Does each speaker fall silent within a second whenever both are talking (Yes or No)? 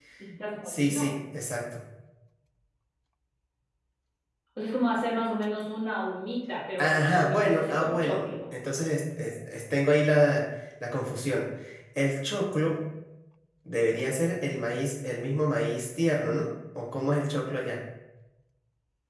No